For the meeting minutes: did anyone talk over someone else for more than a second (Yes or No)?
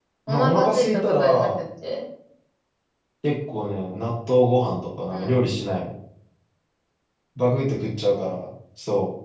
Yes